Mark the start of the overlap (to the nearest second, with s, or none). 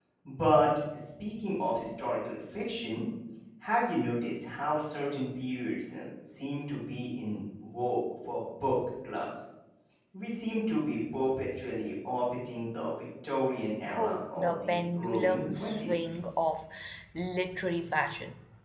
14 s